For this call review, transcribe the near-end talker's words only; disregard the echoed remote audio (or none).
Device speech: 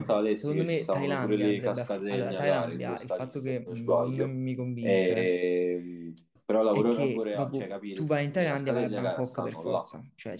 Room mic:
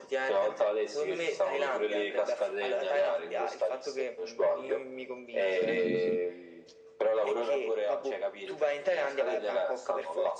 Sì, sì, sì.